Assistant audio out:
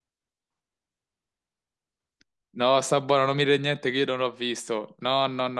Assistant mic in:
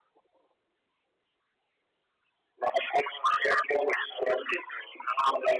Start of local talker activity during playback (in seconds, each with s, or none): none